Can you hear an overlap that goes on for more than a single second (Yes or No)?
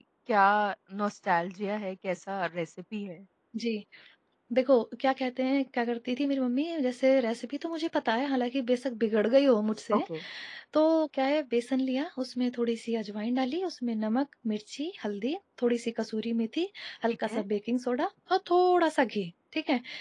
No